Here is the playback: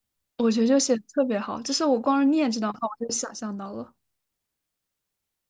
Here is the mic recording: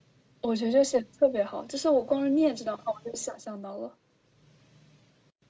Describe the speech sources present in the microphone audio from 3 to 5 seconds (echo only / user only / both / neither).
echo only